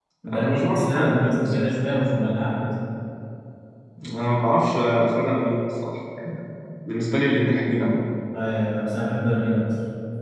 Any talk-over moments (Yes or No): Yes